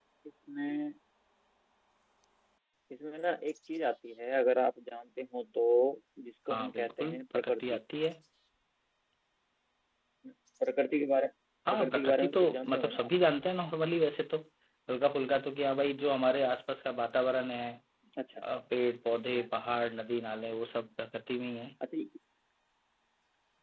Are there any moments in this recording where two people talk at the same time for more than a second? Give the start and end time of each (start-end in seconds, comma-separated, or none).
6.5-7.8, 11.7-13.1